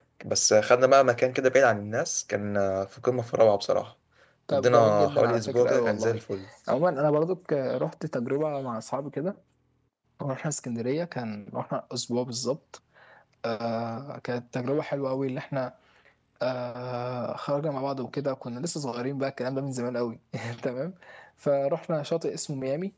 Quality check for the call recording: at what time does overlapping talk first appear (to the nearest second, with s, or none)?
5 s